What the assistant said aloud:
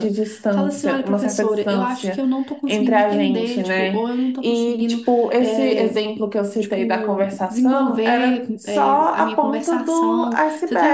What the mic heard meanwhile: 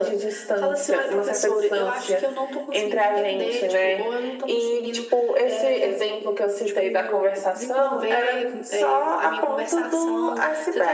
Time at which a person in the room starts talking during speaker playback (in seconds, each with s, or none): none